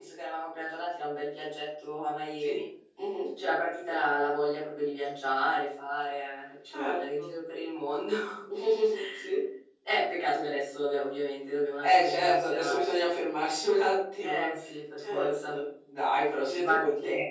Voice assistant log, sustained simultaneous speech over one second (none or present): present